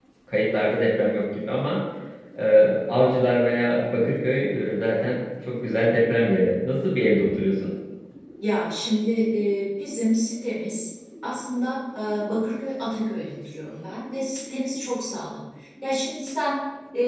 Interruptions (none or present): none